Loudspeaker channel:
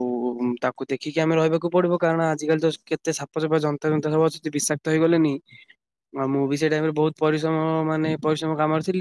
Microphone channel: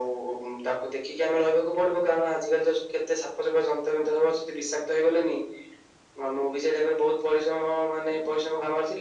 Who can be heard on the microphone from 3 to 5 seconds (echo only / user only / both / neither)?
echo only